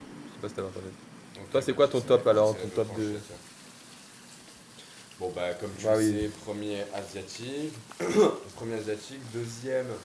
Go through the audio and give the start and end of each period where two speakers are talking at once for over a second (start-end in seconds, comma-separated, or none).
1.5-3.2